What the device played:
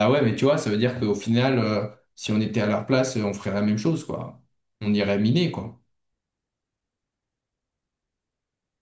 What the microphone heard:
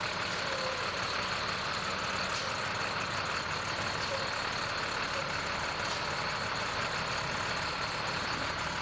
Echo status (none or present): none